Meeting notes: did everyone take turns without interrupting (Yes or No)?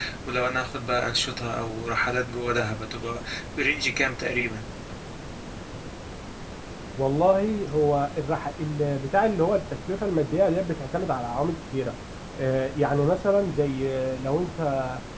Yes